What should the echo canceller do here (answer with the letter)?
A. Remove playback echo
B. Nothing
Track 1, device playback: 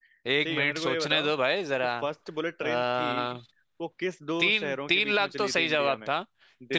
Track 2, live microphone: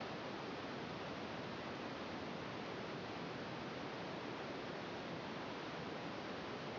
B